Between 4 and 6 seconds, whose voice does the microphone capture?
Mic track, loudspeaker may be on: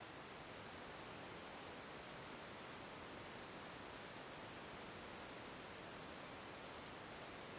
neither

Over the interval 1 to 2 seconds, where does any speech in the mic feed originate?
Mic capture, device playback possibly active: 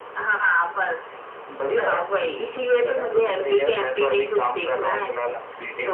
echo only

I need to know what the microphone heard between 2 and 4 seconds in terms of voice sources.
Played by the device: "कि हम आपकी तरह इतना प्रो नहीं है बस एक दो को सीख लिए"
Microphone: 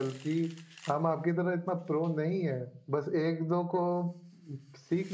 echo only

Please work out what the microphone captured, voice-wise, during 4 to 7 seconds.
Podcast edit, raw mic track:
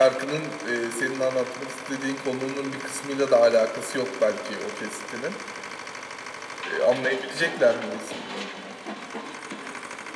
user only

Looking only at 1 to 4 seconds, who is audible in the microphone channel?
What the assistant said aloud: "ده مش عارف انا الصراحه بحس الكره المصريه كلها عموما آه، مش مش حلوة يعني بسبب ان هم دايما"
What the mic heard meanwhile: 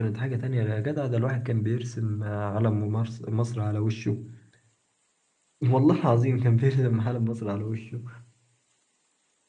user only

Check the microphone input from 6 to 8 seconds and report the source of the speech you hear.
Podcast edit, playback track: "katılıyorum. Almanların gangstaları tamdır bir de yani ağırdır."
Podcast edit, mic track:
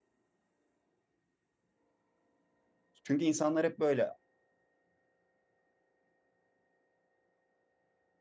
neither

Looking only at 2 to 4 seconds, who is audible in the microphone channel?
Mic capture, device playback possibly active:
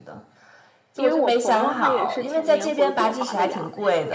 both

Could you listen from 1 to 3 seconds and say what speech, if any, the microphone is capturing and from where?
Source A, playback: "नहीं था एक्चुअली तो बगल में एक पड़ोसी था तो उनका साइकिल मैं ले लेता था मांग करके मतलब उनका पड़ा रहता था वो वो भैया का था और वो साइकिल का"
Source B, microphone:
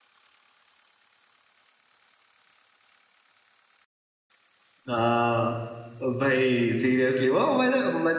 neither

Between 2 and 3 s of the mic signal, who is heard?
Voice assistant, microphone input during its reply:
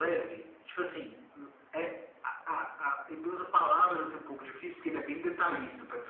echo only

